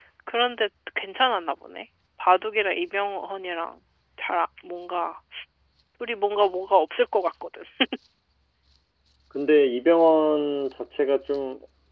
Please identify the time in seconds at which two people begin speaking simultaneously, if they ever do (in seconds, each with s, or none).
none